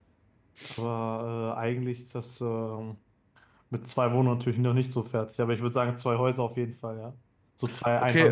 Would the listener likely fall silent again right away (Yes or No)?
No